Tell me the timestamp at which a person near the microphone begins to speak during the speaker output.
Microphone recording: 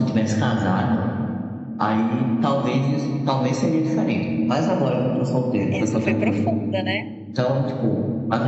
5.7 s

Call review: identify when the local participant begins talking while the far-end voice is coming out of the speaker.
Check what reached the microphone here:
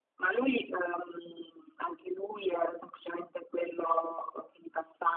none

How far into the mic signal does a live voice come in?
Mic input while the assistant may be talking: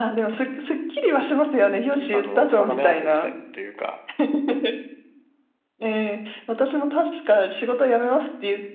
1.9 s

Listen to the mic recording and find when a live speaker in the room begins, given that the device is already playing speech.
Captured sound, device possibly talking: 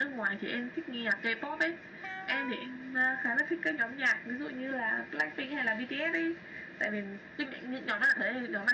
none

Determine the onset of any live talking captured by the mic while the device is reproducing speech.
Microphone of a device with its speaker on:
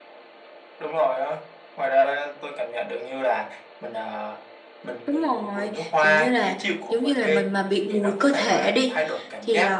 5.0 s

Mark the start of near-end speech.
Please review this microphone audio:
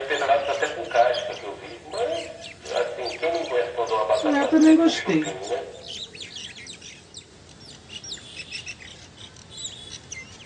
4.2 s

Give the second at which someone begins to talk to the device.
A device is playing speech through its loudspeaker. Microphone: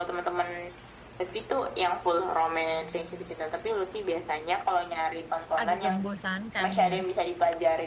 5.6 s

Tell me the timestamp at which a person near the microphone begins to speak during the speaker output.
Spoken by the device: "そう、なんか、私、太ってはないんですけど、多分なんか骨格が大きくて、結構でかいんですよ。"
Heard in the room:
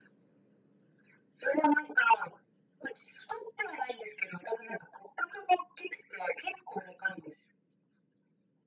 none

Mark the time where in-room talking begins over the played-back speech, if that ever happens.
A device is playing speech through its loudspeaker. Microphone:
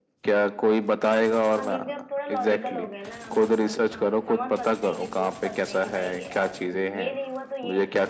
1.5 s

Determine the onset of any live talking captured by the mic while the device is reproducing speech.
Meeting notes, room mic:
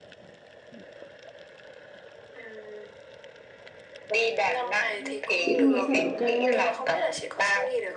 5.4 s

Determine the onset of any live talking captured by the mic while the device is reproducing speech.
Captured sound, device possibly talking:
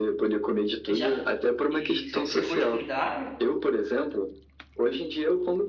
0.9 s

